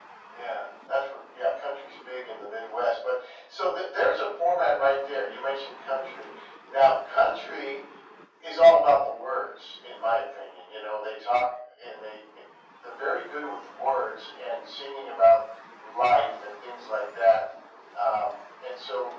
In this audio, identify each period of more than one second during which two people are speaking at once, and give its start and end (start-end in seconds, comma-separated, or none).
none